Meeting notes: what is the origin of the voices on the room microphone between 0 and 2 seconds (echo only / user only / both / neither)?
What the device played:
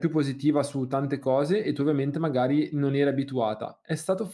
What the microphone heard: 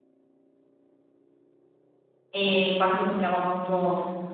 neither